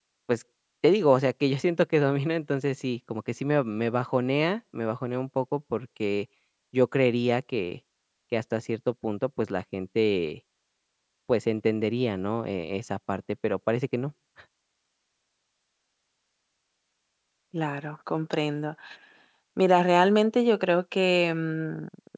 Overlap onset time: none

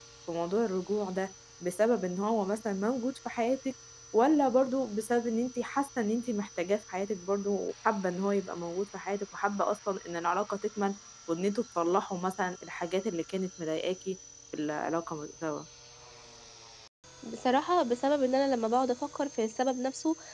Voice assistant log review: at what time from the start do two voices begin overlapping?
none

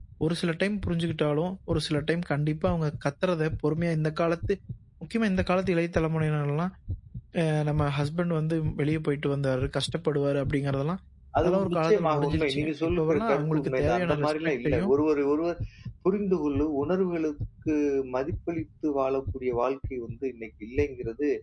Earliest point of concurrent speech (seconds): 11.4 s

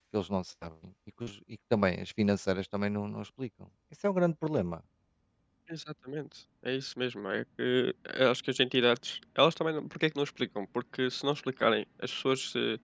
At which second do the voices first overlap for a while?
none

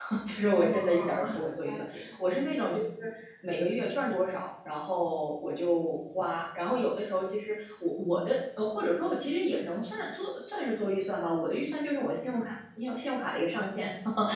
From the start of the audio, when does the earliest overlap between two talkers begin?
0.5 s

